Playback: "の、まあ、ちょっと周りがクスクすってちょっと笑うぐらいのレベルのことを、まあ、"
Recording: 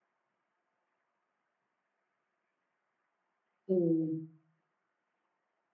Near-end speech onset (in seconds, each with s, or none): 3.7 s